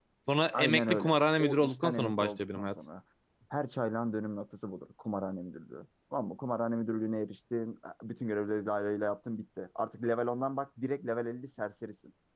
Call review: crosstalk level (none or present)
present